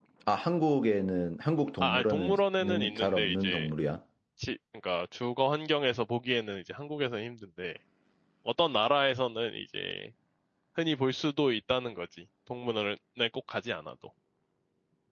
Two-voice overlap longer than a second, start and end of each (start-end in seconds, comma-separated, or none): 1.8-3.7